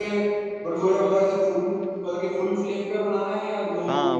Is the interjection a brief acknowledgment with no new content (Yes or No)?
No